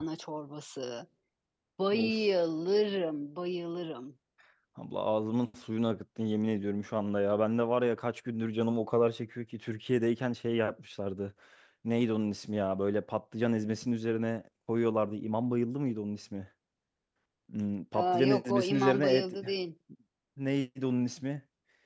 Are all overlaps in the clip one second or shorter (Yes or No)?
No